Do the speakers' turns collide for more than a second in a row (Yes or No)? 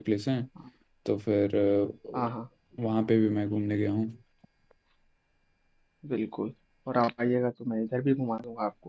No